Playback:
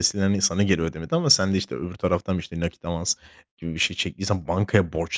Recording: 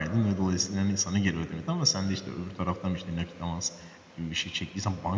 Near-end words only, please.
none

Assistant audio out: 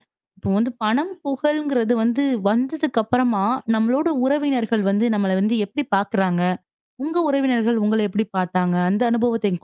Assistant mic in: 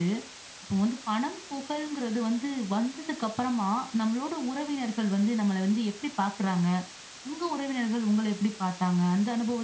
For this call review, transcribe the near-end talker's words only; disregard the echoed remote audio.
none

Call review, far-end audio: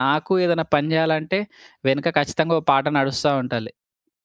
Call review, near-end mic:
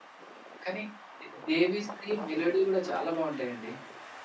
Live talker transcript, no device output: కానీ, దే 'దేవిశ్రీ' మెలోడీ గూడా చాలా బావుంటాయండి.

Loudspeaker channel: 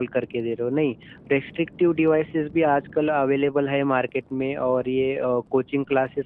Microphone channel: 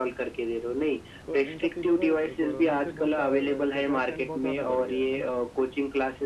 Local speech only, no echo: तो इन सब चीज़ों का कोरोना से बहुत सा अ, क्या ट्रेंड बहुत ज़्यादा बढ़ गया है, है ना?

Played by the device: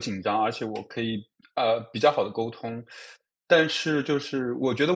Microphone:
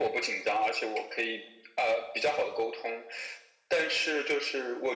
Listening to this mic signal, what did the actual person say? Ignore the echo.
none

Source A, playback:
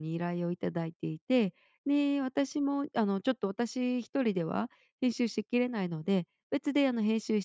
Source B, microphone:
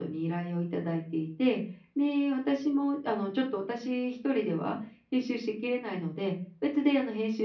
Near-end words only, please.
none

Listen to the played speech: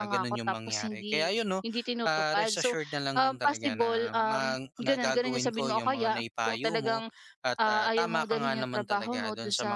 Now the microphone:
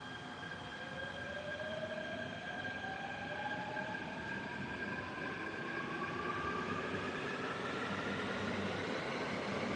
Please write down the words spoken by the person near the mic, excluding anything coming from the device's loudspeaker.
none

